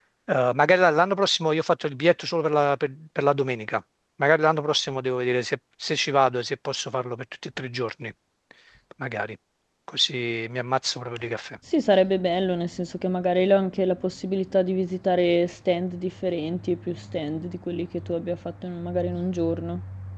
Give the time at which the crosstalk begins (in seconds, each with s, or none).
none